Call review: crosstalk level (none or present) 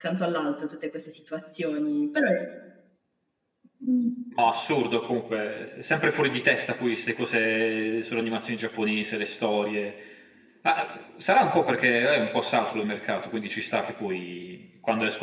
none